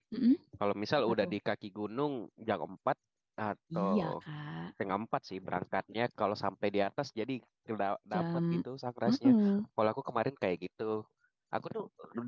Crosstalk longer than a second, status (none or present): none